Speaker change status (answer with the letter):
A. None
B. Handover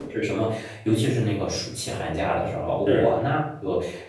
A